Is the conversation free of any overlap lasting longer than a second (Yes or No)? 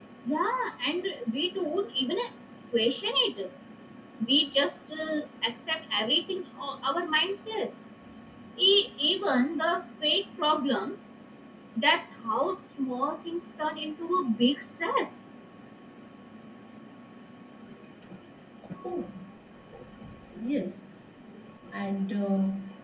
Yes